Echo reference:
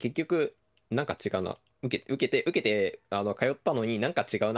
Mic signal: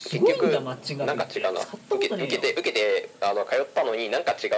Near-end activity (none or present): present